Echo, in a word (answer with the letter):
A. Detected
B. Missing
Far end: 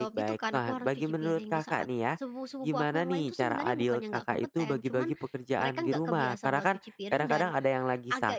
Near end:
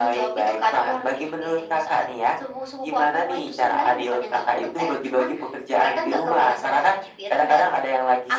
A